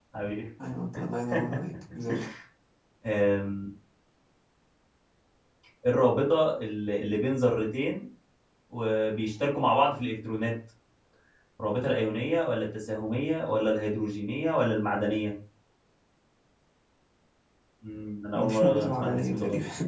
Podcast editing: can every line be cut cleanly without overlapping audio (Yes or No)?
No